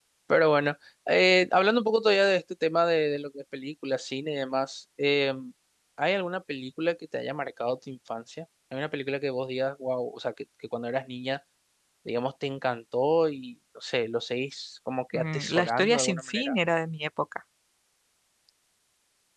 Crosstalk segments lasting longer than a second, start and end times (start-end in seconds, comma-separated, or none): 15.1-16.6